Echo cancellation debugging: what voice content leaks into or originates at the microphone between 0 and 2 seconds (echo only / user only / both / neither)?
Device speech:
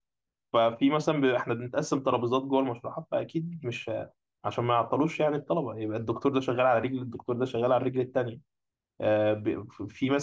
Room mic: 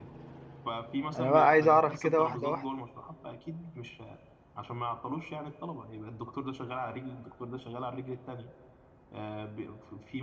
both